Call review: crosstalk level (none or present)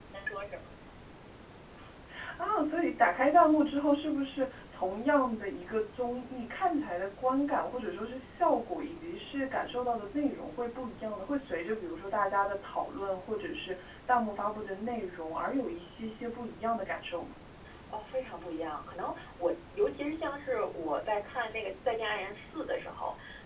none